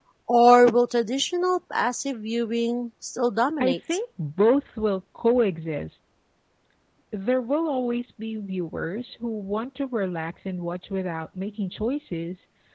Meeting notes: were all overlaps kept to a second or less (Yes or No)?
Yes